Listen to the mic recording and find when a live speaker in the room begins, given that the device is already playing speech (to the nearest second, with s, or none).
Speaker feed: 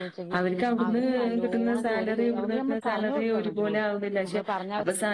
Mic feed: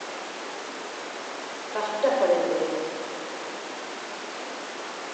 2 s